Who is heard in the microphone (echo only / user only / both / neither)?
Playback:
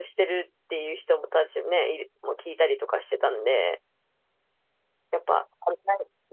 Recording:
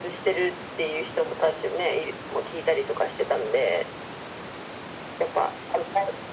echo only